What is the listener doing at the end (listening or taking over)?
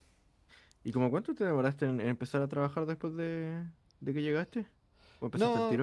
taking over